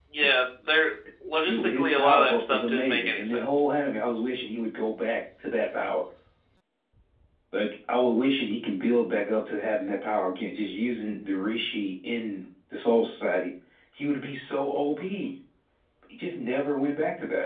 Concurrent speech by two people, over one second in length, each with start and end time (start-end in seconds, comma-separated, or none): 1.5-3.6